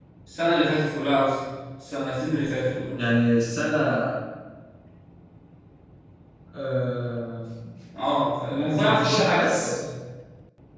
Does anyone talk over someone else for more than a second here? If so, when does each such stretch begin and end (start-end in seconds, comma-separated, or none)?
8.5-9.8